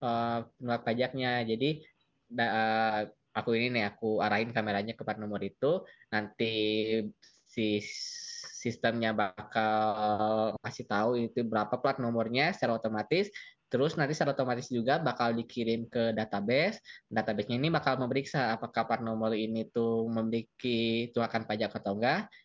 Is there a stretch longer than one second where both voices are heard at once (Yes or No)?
No